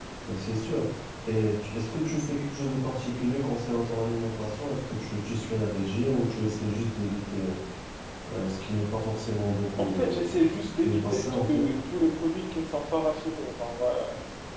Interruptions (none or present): present